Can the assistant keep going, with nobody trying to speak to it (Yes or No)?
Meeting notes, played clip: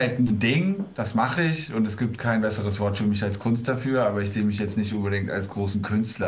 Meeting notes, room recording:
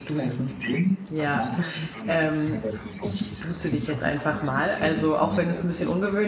No